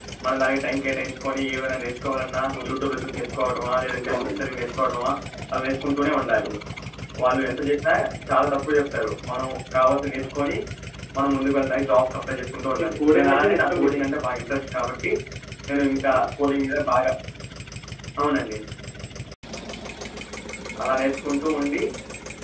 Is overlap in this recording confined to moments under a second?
No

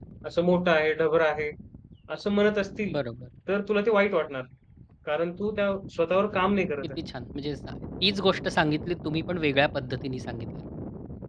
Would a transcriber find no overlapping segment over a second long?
Yes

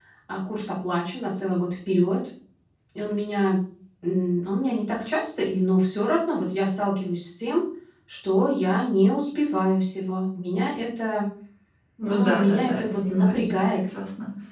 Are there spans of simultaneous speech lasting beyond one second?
Yes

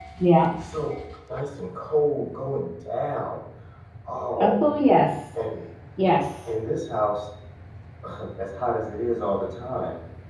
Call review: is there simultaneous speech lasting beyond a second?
No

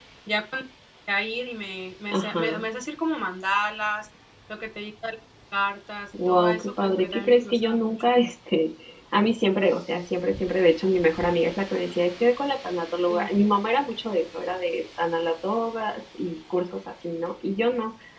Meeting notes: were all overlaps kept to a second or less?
No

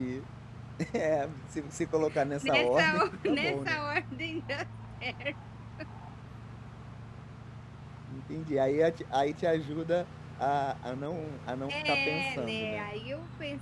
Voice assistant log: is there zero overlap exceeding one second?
No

